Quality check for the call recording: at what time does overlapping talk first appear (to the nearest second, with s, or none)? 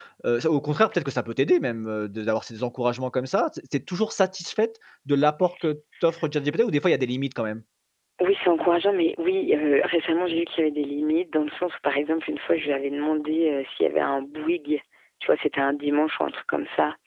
none